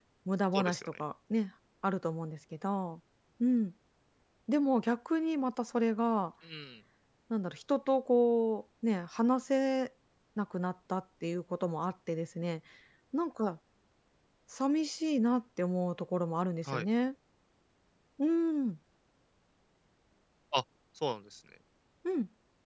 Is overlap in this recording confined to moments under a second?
Yes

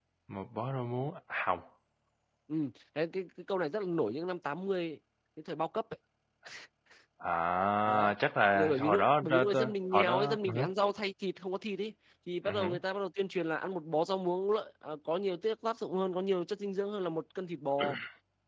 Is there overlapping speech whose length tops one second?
Yes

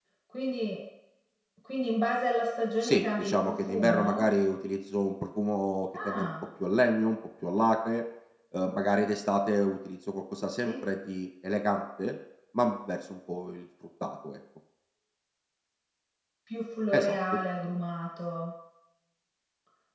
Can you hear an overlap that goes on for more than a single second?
Yes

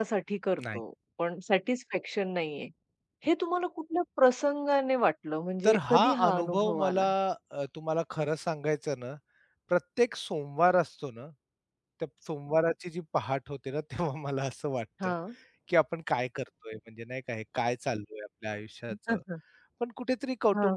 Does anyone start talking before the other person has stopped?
Yes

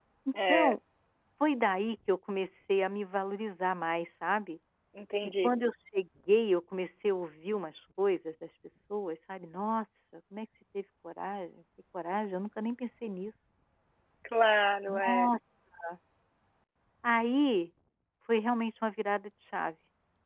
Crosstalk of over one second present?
No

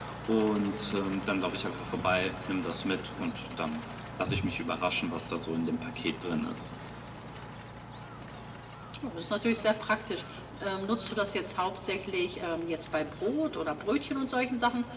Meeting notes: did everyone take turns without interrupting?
Yes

